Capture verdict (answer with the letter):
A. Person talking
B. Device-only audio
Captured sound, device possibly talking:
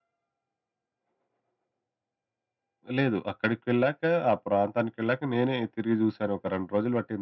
B